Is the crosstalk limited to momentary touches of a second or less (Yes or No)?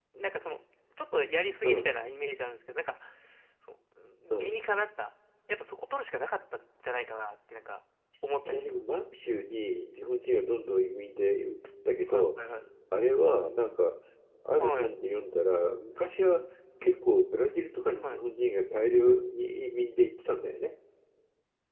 Yes